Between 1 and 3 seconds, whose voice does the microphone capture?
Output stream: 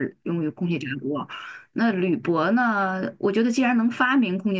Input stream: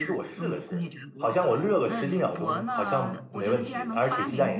both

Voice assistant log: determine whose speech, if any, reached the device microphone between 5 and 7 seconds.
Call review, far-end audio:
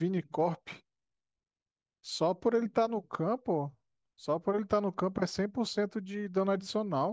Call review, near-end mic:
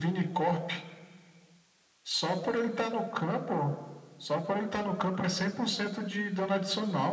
echo only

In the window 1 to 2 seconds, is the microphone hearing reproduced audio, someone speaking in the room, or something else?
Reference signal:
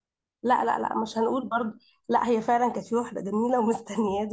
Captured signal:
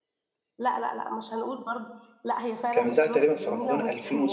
echo only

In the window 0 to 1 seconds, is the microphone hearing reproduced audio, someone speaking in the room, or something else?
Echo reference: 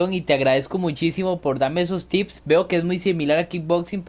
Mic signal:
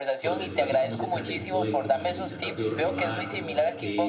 both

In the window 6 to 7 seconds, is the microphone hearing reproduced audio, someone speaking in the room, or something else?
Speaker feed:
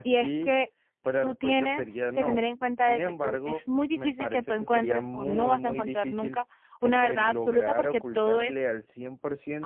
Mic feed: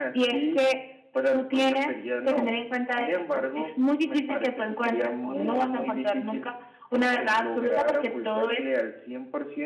echo only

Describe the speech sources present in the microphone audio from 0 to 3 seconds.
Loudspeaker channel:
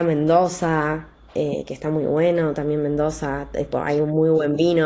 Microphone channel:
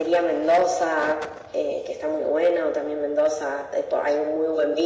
echo only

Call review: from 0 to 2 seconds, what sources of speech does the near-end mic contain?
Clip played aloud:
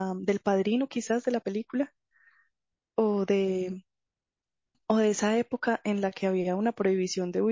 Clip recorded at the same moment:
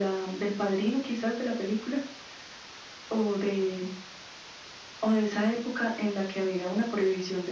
echo only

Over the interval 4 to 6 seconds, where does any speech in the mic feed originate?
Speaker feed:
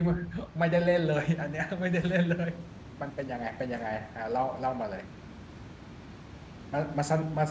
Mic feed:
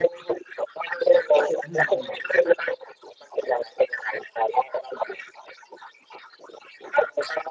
echo only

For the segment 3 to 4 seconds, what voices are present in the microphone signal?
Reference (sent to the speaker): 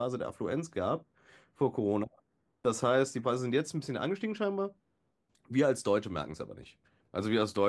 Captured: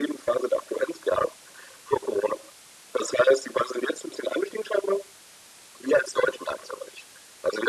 echo only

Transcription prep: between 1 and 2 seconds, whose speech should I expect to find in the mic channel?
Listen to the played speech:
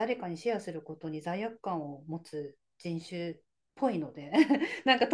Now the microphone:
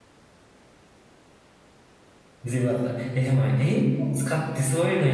neither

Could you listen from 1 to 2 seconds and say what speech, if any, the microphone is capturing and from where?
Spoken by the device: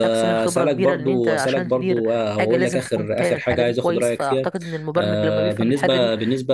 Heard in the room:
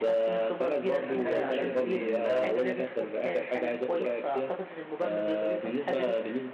both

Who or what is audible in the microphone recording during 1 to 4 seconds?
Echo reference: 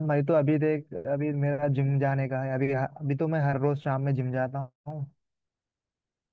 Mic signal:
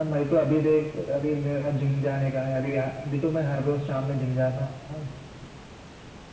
echo only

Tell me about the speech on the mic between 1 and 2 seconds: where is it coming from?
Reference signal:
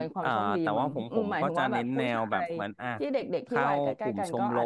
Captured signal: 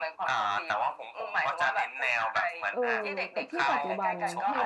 echo only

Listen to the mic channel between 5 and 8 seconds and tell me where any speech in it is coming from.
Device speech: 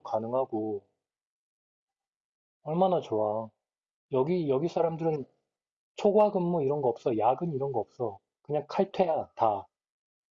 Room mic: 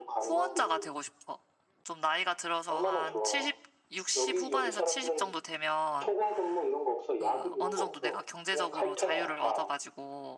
both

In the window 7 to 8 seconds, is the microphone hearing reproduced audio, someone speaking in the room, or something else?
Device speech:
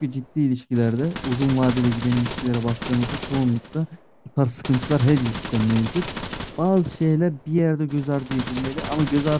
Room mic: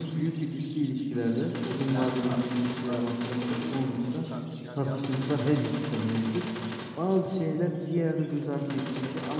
echo only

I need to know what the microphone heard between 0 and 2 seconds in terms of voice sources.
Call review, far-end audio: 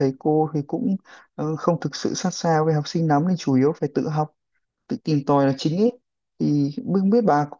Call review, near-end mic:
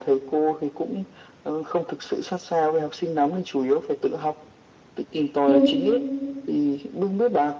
echo only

